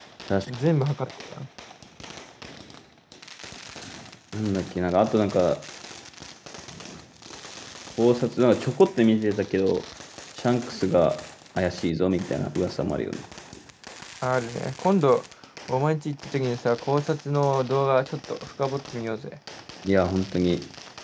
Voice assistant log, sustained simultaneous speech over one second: none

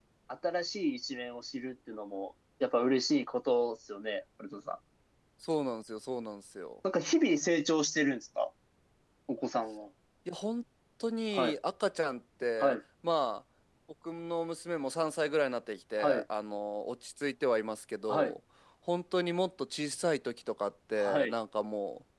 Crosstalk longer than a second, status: none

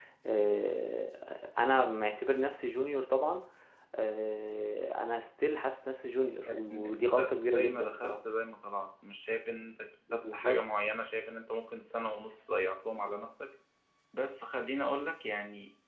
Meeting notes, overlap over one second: present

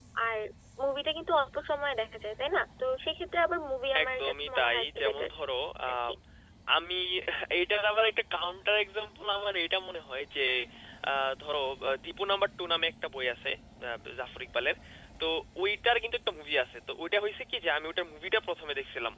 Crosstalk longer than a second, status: present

